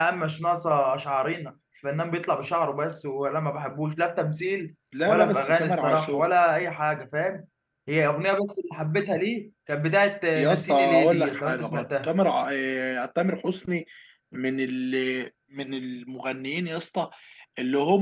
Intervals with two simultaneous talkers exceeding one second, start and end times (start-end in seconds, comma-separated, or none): 5.1-6.3, 10.3-12.1